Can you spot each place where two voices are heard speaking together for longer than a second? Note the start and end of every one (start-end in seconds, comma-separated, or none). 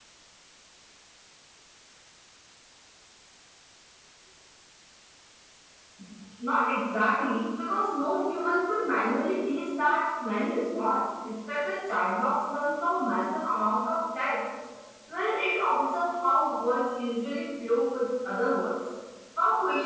none